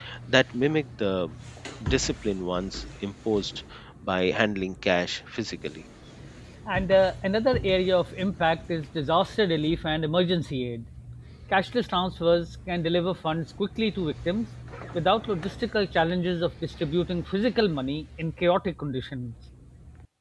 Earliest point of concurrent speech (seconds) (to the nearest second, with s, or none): none